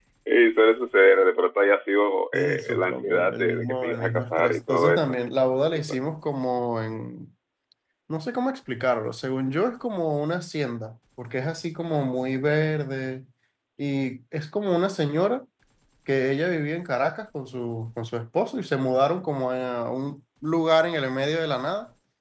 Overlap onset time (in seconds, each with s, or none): 2.3 s